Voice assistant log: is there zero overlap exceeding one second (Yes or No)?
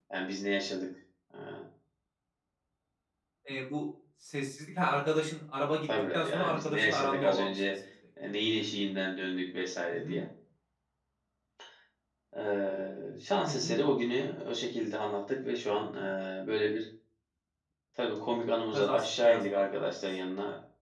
No